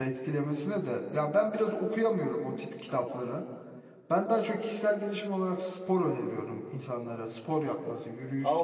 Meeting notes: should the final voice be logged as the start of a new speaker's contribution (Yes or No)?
Yes